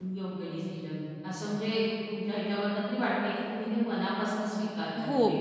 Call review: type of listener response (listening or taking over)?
taking over